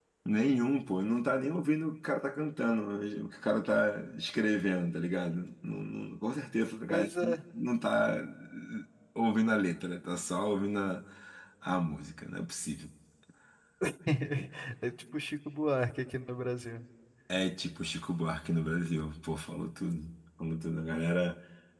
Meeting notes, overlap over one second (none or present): none